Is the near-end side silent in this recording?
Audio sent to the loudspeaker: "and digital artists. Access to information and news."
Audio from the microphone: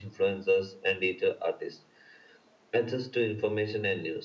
Yes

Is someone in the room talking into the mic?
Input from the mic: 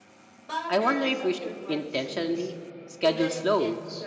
Yes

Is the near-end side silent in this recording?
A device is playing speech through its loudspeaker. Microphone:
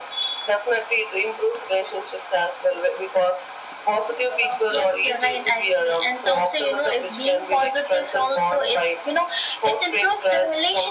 Yes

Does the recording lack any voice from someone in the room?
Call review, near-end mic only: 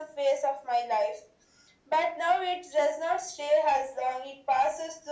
Yes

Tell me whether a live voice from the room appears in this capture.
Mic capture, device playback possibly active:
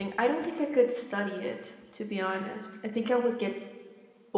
Yes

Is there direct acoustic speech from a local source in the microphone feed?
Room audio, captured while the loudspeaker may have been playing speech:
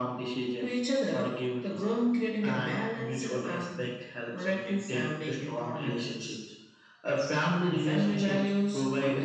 No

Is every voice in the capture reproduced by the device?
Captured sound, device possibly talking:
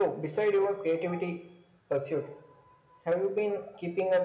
Yes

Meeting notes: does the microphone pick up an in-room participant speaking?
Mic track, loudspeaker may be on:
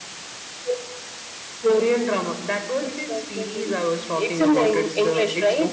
Yes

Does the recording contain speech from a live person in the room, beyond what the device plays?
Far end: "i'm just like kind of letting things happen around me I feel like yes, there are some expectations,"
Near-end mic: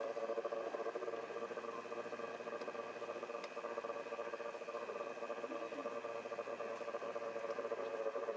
No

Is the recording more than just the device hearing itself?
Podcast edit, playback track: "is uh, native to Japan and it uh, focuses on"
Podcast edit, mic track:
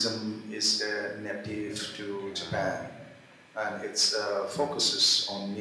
Yes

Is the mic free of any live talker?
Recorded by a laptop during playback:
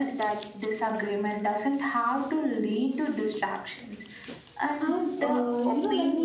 No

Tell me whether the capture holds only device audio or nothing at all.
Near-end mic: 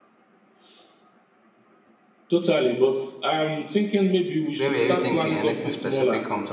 No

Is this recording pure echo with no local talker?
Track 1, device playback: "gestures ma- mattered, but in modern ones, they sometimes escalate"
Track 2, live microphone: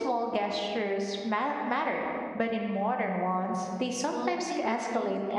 No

